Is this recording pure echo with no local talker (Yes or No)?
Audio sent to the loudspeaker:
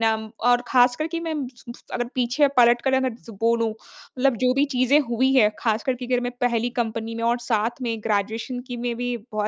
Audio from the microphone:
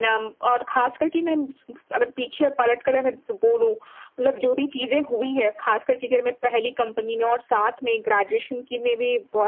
Yes